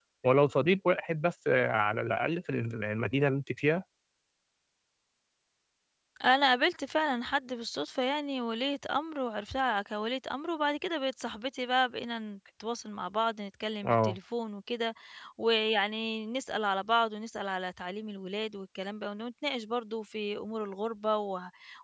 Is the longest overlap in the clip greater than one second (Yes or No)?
No